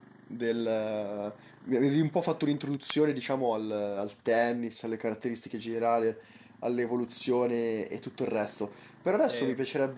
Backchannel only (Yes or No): Yes